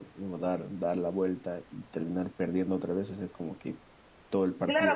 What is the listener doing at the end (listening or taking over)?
taking over